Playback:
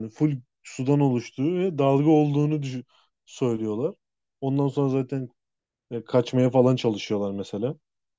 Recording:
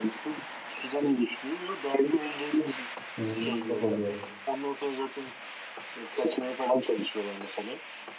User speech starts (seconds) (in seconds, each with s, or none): 3.2 s